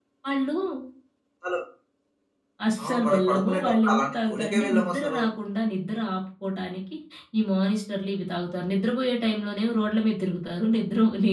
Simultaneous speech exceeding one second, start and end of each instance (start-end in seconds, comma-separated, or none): 2.8-5.2